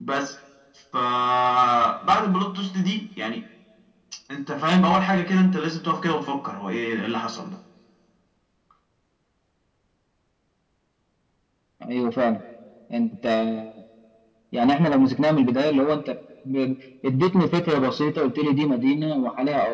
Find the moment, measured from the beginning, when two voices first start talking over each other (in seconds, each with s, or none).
none